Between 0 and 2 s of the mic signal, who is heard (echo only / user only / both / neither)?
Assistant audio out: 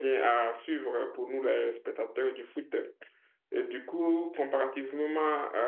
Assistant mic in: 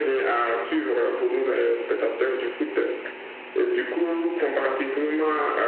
echo only